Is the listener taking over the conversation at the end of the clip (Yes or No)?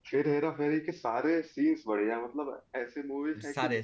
No